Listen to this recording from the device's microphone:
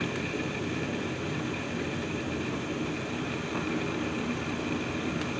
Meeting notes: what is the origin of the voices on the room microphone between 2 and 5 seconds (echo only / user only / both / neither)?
neither